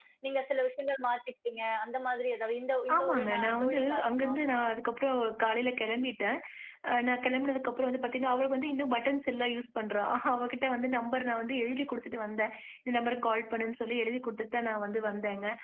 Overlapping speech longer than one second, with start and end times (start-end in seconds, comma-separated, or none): 3.0-4.3